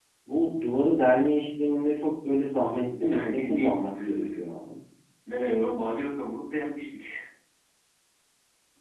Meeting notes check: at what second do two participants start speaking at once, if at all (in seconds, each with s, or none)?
2.9 s